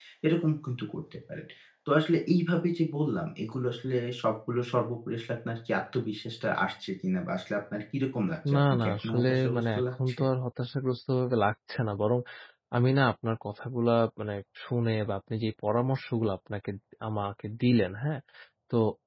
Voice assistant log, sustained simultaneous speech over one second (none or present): present